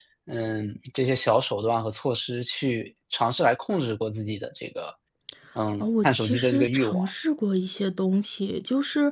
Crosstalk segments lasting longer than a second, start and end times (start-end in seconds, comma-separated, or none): 5.8-7.1